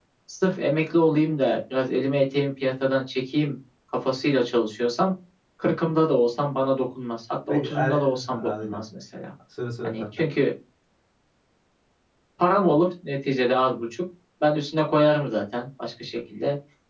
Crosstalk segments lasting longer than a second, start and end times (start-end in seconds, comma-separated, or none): 7.5-8.8